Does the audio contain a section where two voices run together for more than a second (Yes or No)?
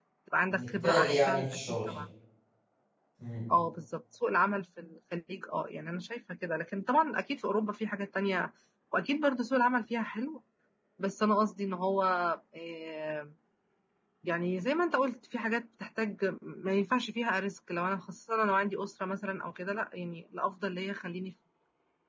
Yes